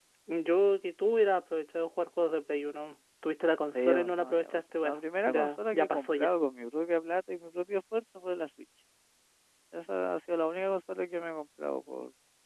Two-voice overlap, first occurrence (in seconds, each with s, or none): 3.7 s